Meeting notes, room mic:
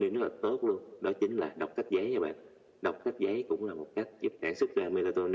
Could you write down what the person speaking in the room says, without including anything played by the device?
none

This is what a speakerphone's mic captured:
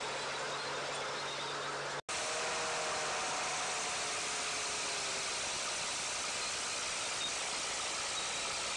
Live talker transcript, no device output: none

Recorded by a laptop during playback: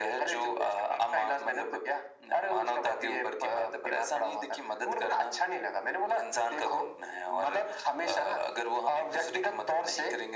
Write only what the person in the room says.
none

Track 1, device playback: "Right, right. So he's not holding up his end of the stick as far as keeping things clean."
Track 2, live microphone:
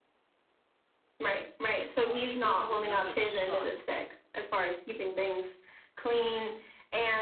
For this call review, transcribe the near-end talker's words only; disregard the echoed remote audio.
Uh, she does have another son

